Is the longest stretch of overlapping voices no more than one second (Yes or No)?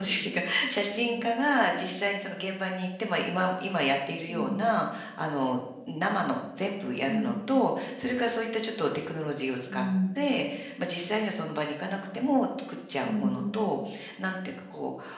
Yes